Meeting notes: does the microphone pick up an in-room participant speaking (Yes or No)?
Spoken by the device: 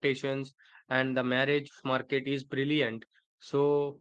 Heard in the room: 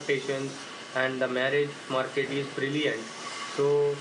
No